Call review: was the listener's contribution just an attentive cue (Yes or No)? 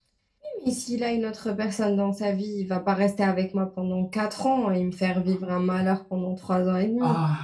No